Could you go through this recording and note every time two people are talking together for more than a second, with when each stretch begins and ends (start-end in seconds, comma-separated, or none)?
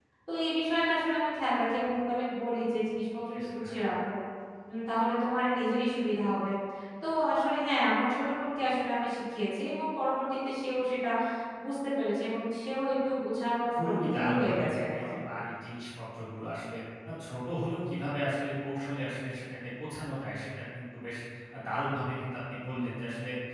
13.7-15.1